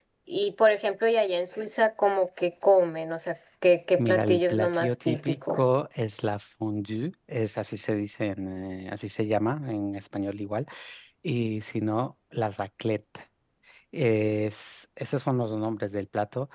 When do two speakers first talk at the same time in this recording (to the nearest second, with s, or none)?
4 s